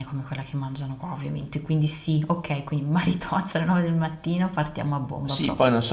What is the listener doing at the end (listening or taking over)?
taking over